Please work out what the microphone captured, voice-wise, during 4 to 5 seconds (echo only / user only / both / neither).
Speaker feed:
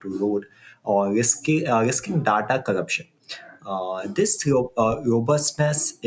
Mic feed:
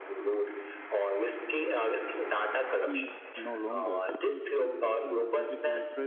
both